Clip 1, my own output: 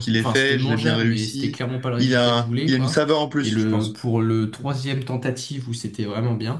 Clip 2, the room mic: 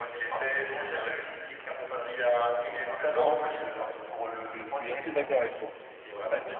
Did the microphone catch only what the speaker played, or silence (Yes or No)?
No